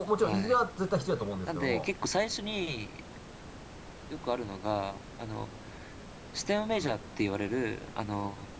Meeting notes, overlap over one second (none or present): none